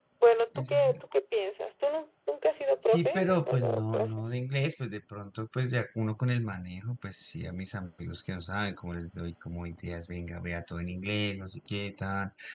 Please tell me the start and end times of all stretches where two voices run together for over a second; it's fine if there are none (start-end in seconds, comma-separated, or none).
2.9-4.3